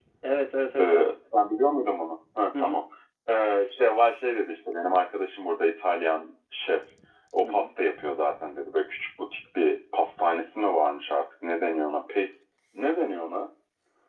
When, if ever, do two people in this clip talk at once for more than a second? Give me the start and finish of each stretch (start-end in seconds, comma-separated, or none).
none